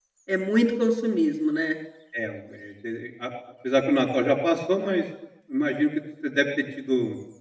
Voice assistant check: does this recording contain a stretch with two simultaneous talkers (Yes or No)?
No